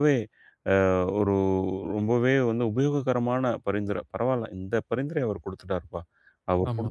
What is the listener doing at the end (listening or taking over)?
listening